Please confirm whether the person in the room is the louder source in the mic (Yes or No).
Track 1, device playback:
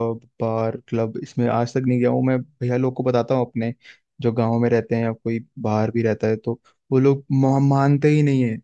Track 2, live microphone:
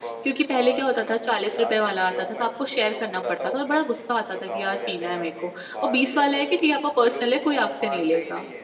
Yes